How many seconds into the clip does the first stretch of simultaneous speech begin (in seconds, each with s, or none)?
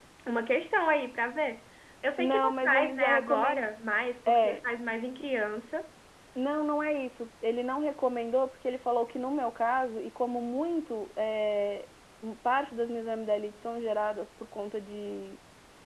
2.2 s